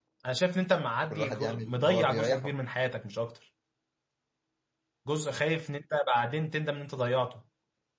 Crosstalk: present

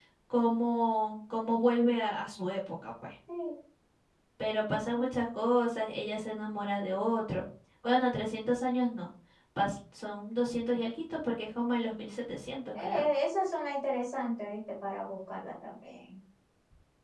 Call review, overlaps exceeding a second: none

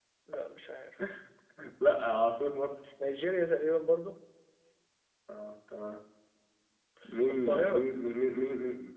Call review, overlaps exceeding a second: none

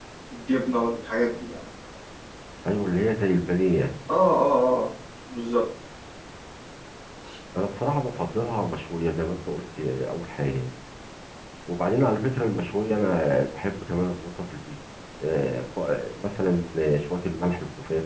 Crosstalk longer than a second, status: none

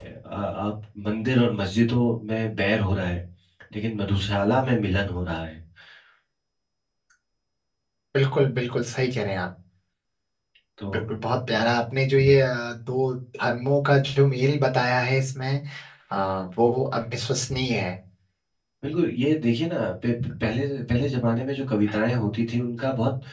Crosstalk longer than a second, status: none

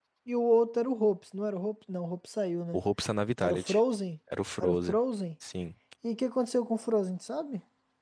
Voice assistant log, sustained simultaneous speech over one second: none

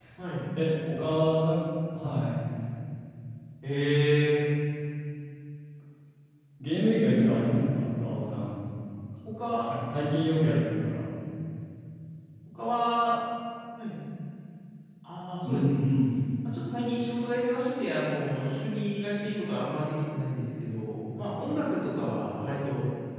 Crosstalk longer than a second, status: none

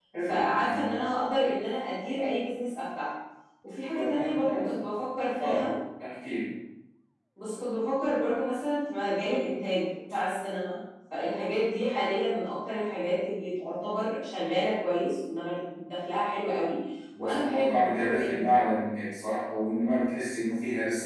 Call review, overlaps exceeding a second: present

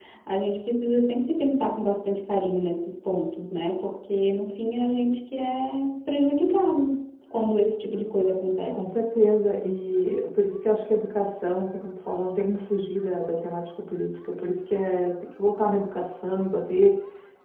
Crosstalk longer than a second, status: none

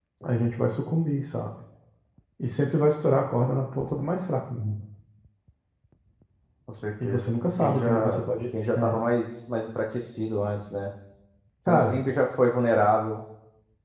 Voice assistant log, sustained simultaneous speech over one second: present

